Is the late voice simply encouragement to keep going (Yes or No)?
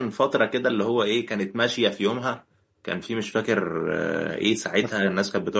Yes